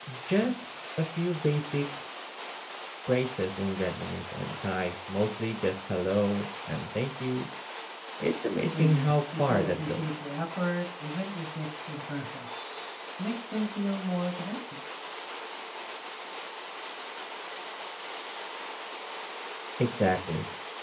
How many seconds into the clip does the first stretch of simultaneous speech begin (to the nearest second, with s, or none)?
9 s